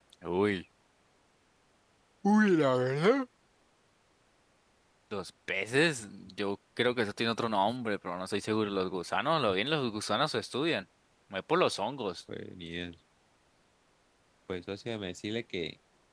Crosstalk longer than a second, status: none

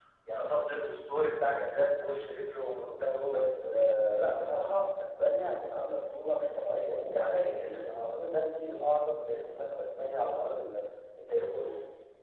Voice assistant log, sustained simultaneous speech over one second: none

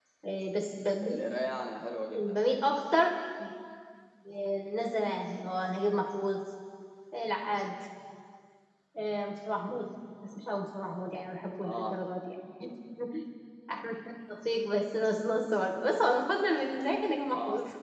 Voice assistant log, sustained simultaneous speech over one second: none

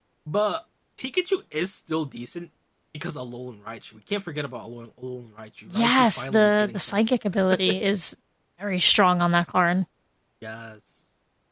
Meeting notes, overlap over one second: present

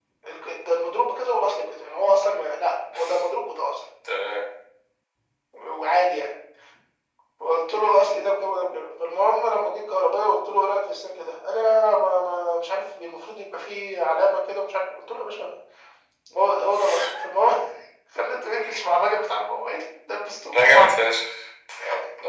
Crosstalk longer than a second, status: none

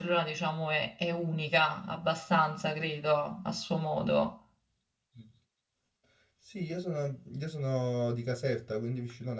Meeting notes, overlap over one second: none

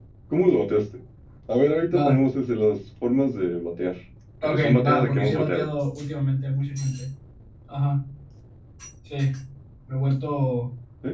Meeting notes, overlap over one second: present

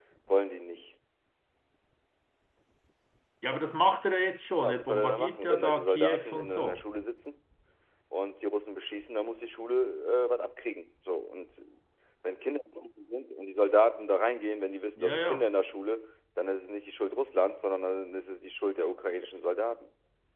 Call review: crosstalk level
present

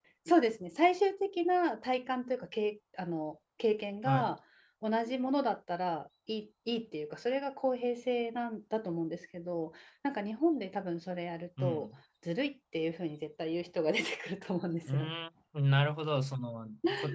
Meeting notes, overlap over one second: none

